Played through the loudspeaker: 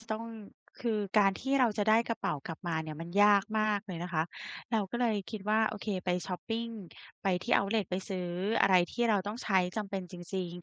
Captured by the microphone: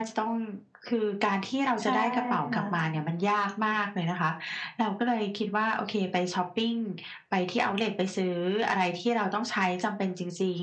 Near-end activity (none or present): present